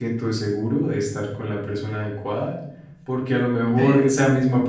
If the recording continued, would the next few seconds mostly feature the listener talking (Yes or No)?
No